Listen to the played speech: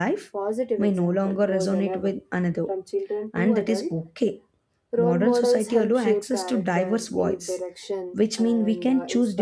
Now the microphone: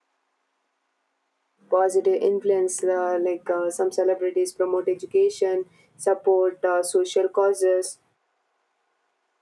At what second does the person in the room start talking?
1.7 s

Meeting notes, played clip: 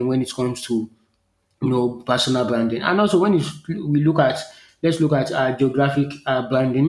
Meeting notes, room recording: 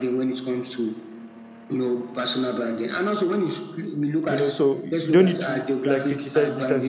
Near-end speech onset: 4.3 s

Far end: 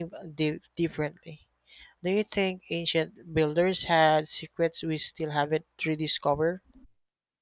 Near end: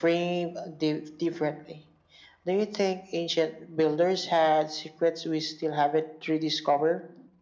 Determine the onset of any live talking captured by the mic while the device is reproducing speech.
none

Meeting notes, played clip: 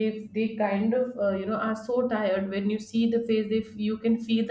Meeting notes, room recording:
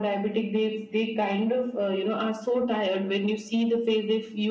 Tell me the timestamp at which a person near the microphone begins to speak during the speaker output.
none

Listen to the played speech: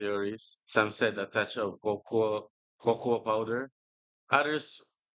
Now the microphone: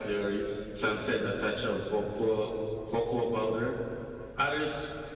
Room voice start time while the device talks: none

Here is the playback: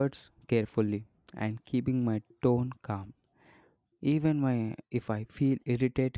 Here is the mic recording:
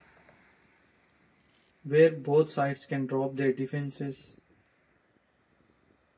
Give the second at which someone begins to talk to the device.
1.8 s

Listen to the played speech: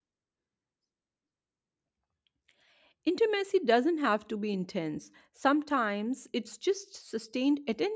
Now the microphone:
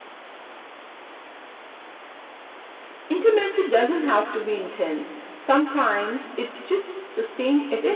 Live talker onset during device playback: none

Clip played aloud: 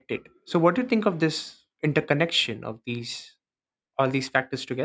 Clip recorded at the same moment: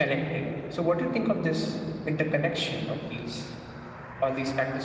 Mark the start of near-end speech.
none

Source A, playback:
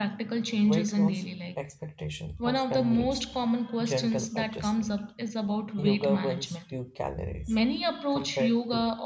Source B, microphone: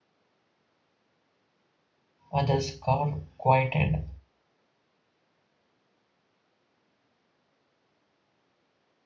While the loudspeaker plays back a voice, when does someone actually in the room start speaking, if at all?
2.3 s

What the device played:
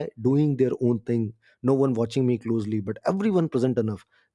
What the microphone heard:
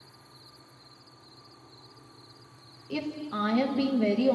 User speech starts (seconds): 2.9 s

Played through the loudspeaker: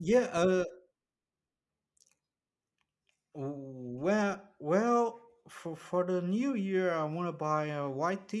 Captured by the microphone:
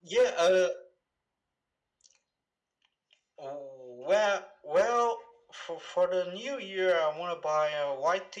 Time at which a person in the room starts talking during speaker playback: none

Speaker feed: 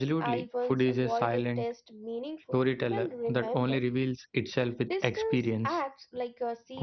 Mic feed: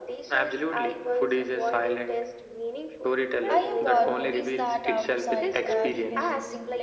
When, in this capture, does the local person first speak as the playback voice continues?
3.5 s

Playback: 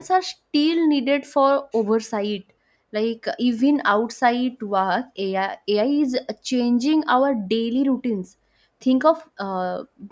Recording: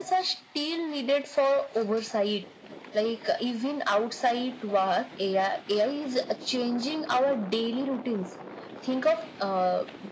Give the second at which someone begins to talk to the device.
none

